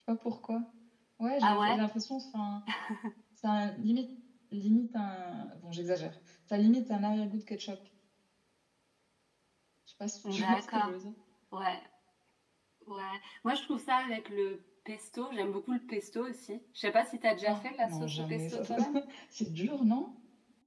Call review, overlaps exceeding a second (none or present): present